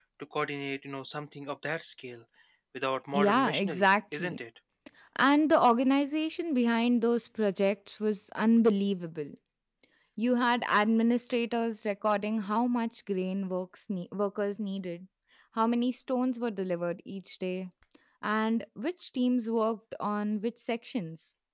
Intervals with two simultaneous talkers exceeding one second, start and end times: 3.1-4.4

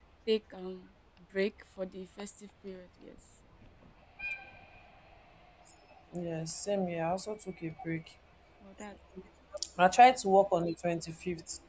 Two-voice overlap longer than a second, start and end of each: none

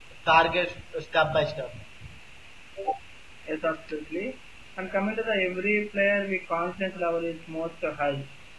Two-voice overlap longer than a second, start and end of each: none

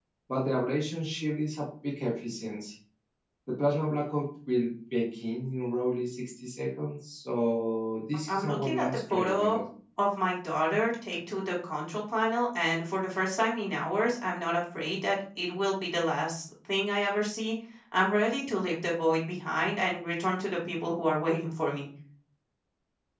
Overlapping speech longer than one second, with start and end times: 8.3-9.6

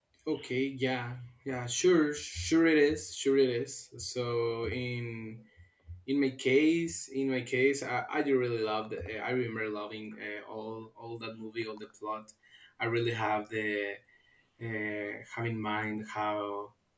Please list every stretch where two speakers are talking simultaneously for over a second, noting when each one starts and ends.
none

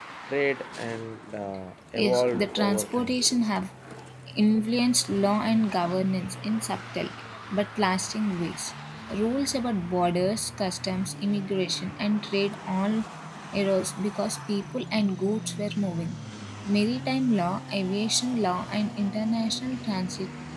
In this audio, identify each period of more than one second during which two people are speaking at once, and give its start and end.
1.9-3.2

